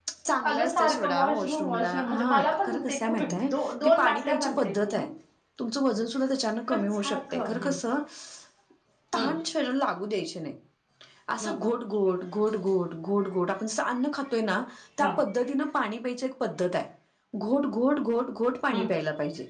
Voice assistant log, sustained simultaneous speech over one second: present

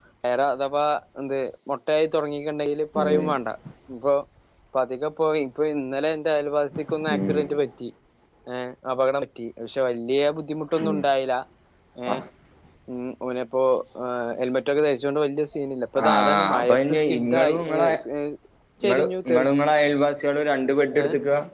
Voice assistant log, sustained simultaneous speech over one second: present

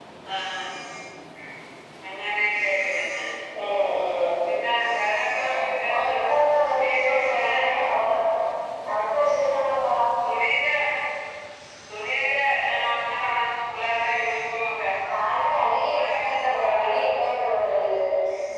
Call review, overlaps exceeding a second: present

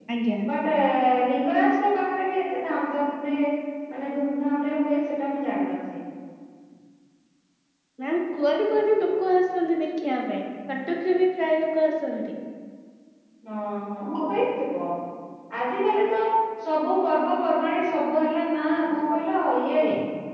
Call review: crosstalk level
none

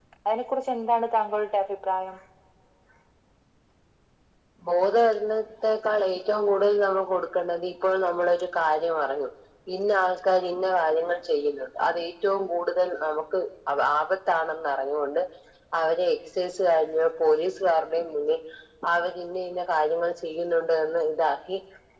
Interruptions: none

